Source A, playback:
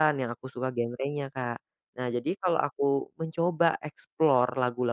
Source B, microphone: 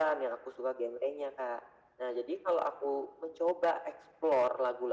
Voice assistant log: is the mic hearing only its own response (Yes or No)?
Yes